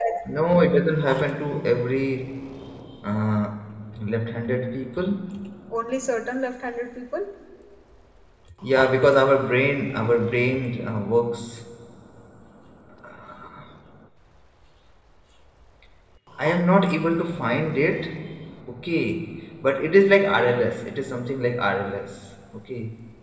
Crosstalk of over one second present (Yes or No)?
No